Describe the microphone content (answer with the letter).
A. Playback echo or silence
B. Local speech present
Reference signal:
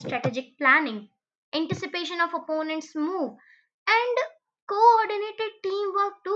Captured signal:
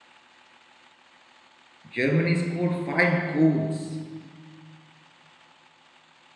B